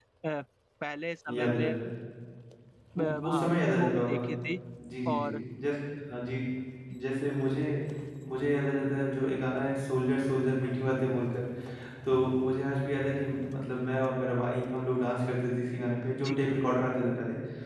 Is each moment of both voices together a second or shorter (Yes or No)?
No